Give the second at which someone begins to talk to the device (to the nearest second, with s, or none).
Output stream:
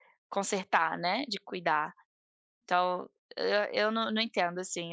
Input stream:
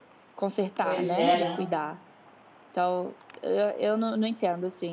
1 s